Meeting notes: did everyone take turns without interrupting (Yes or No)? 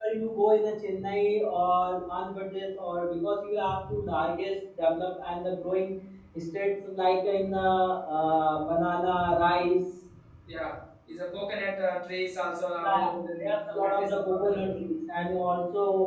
No